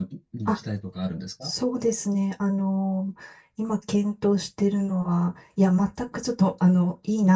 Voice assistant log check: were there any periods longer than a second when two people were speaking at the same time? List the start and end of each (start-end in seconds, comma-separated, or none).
none